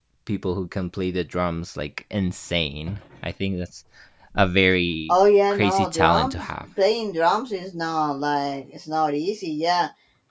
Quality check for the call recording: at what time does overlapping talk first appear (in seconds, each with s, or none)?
5.1 s